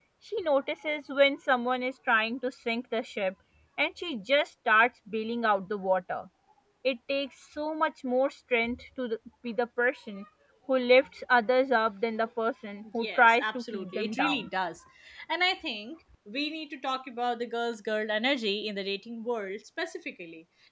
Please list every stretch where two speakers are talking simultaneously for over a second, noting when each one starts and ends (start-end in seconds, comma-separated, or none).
13.0-14.5